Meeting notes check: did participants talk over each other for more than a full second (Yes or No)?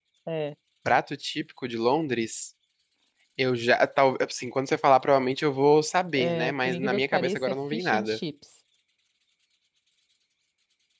Yes